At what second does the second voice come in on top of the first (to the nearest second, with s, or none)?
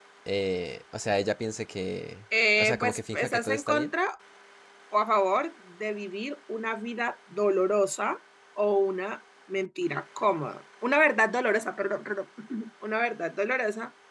3 s